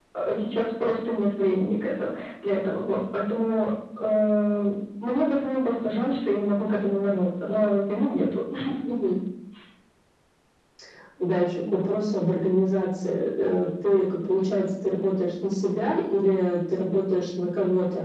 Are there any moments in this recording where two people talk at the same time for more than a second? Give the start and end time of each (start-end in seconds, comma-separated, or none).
none